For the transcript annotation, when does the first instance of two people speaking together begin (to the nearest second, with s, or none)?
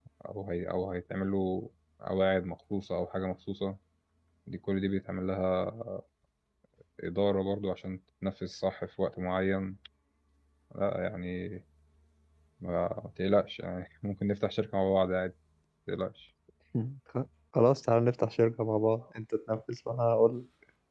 none